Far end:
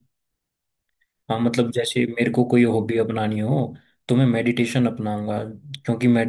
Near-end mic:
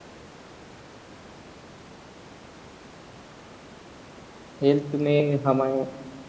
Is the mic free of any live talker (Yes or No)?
No